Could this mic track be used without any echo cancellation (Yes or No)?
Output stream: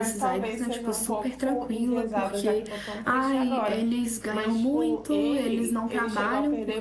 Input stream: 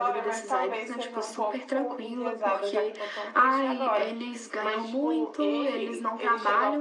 No